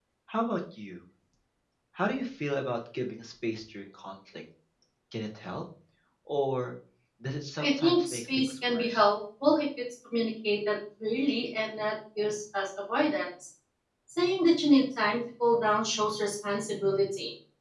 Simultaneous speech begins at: 7.6 s

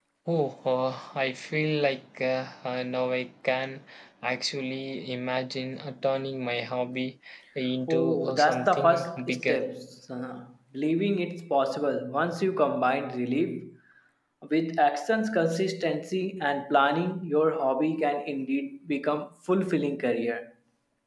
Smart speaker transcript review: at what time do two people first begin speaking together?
7.9 s

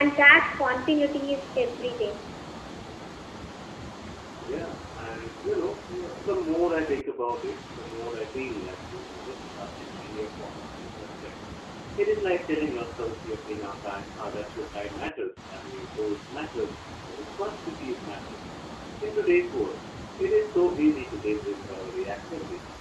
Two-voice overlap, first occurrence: none

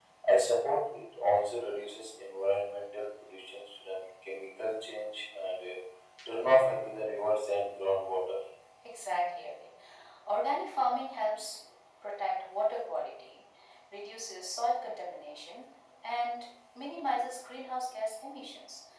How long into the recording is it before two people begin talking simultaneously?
none

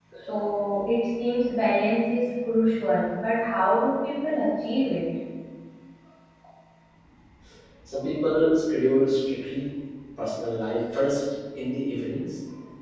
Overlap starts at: none

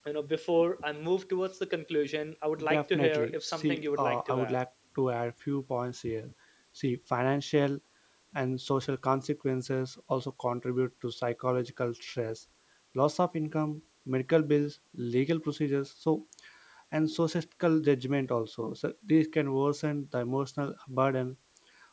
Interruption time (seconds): 2.6 s

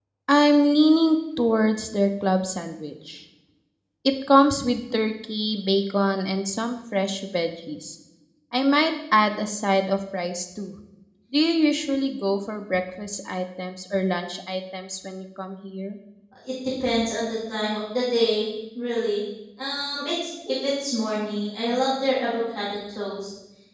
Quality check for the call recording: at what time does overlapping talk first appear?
none

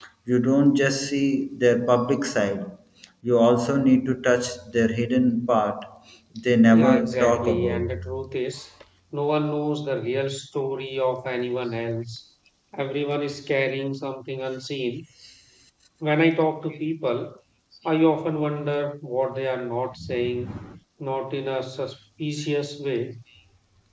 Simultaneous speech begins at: 6.7 s

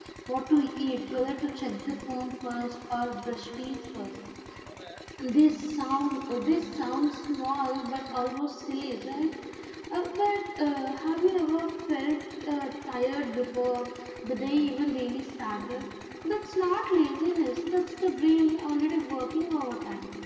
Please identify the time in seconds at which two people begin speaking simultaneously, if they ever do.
none

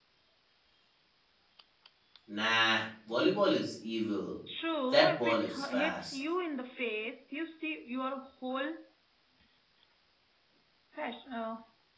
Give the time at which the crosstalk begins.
4.9 s

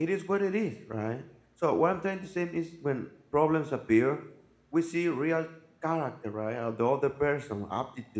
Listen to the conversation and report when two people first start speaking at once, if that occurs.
none

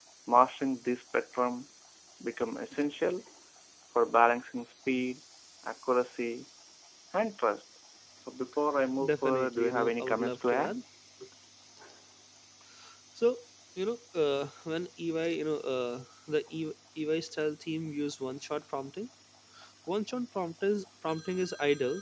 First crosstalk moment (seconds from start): 9.0 s

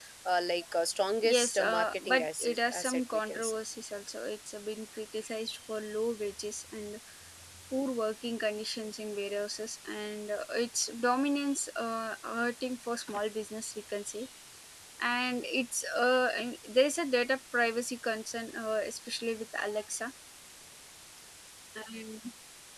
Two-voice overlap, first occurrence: 1.2 s

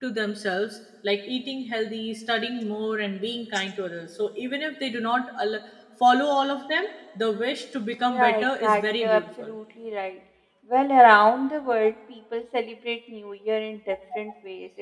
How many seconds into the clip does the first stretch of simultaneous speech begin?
8.0 s

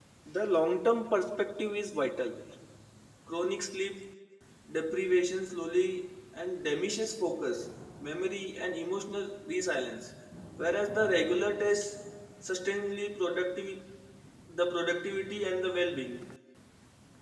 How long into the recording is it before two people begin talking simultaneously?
none

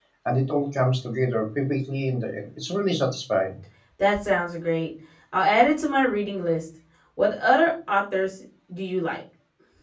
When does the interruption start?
none

